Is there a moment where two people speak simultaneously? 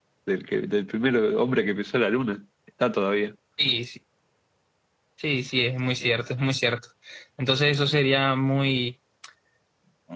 No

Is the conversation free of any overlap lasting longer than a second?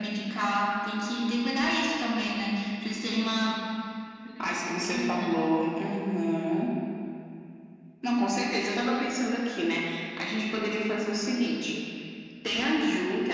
Yes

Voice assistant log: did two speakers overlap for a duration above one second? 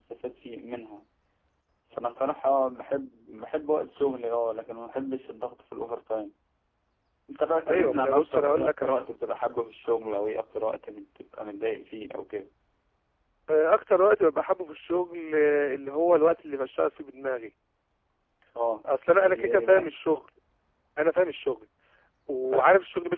Yes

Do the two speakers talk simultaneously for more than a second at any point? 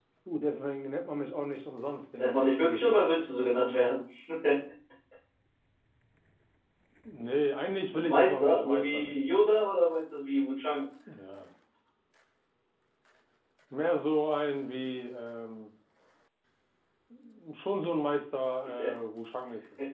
Yes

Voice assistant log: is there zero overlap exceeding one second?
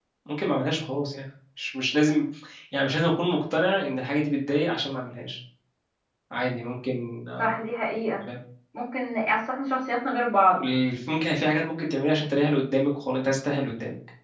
Yes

